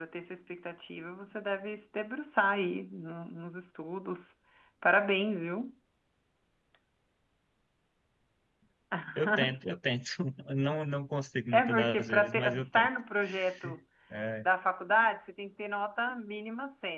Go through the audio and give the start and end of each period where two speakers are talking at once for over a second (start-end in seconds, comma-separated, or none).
11.5-12.9